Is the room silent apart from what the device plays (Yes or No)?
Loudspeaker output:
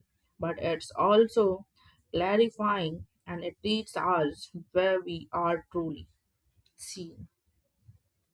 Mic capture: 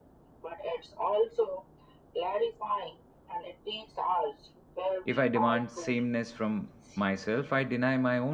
No